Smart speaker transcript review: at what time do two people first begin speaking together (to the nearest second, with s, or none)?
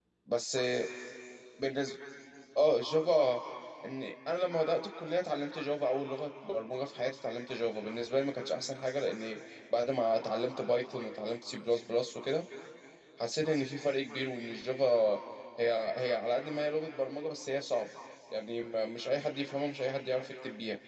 none